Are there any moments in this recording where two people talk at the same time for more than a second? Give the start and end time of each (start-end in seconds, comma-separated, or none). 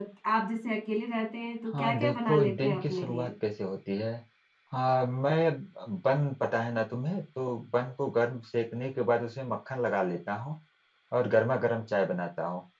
1.7-3.3